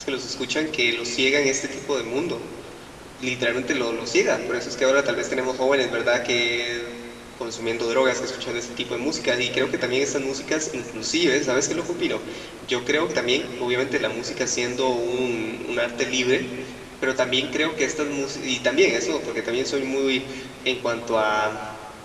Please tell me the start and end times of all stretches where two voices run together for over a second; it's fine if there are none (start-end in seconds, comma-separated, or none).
none